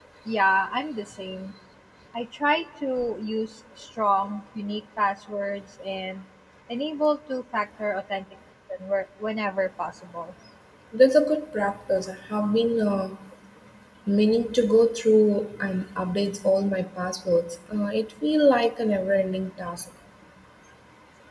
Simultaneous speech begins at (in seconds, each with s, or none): none